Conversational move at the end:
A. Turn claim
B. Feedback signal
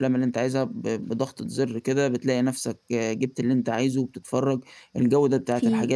B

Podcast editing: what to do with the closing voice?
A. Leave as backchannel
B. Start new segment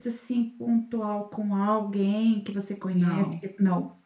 A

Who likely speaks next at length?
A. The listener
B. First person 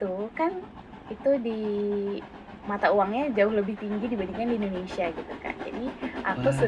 B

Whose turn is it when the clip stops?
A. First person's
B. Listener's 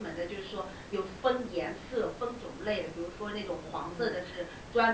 A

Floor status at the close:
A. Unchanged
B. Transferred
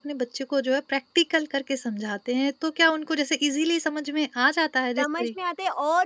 B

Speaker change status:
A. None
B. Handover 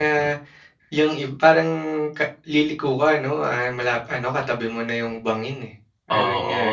B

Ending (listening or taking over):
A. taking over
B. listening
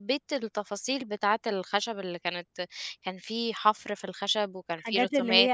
A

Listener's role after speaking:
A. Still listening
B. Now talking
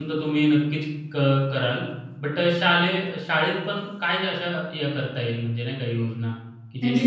A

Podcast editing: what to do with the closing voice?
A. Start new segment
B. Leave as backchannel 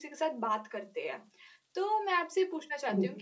B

